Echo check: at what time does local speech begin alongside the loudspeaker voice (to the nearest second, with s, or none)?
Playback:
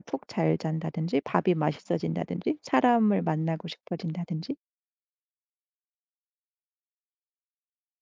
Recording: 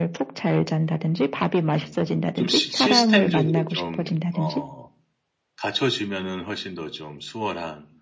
2 s